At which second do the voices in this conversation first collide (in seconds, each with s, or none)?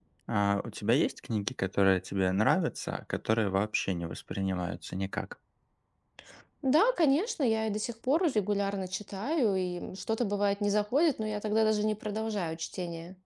none